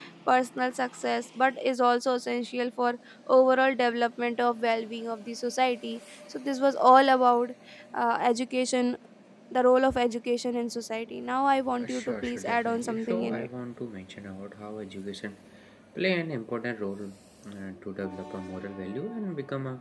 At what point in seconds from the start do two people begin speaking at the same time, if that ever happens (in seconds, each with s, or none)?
11.6 s